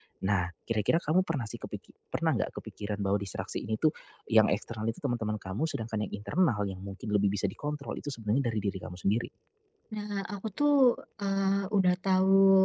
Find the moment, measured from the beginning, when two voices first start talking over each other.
none

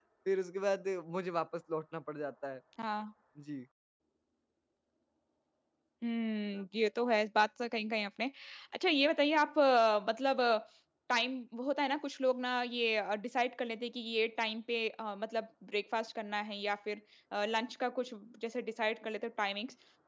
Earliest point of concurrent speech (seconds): none

